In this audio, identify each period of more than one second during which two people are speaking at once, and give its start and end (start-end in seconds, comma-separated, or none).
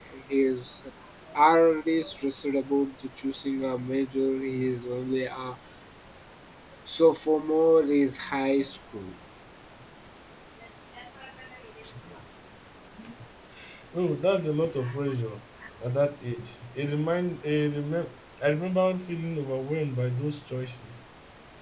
none